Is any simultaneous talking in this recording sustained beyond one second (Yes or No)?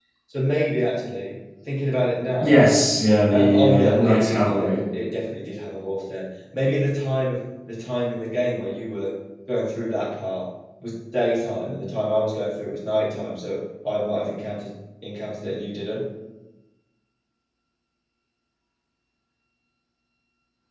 Yes